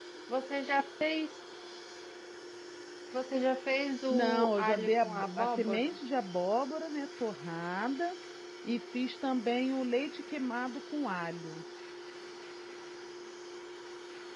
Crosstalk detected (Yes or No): Yes